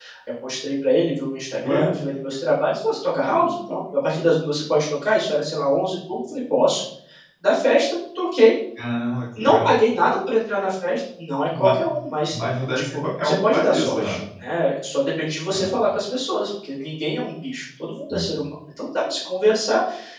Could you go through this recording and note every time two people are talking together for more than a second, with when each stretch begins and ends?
12.9-14.2

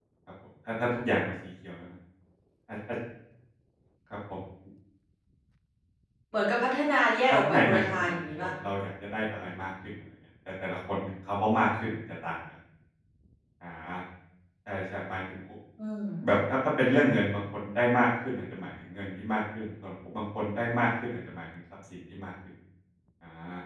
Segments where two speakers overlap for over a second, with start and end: 7.3-8.5

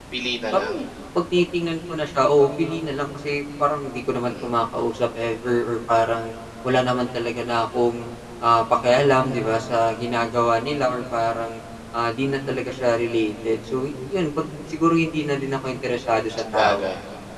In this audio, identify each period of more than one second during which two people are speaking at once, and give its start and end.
none

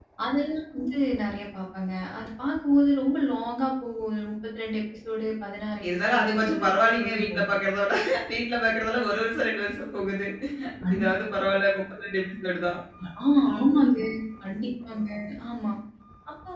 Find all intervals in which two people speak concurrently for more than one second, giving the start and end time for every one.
6.1-7.6

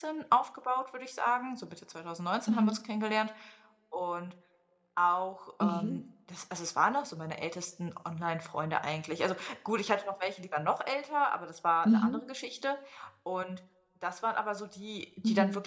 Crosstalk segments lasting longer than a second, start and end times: none

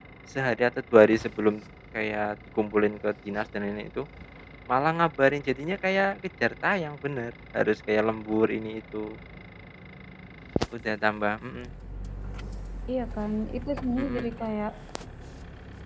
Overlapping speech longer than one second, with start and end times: none

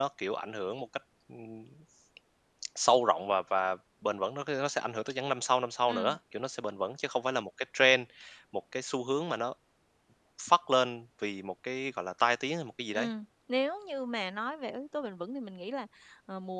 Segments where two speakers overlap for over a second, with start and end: none

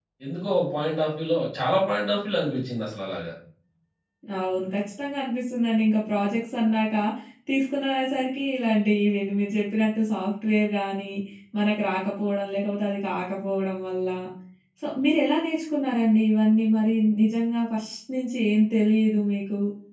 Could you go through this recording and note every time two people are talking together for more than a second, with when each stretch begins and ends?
none

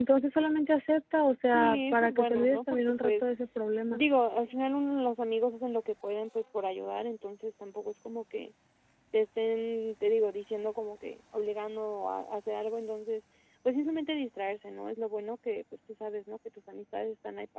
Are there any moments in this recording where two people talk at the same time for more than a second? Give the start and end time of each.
1.5-3.1

